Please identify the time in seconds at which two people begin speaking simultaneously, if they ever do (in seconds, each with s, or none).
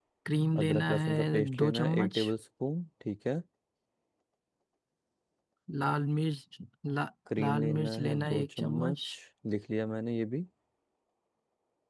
0.6 s